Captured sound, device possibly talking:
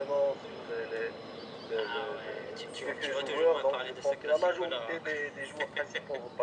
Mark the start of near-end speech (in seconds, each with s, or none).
none